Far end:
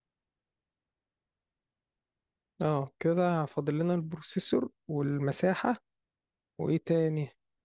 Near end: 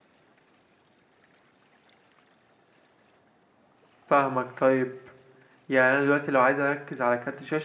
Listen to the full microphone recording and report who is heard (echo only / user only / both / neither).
user only